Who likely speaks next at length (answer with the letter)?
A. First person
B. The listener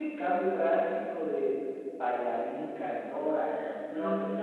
B